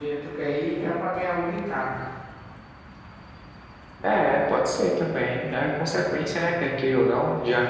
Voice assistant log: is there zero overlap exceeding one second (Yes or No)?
Yes